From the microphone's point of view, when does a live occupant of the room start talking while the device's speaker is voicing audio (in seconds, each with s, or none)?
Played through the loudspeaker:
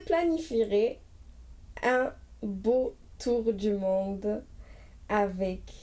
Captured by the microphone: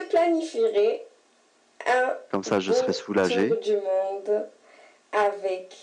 2.3 s